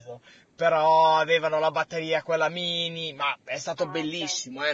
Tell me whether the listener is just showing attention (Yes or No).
Yes